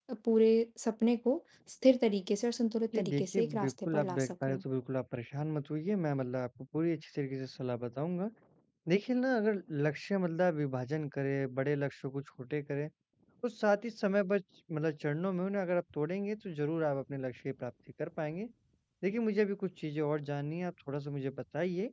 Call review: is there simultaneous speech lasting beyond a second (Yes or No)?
Yes